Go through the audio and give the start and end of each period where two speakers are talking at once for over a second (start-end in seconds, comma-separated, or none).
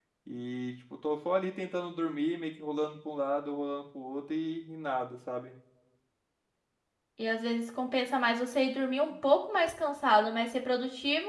none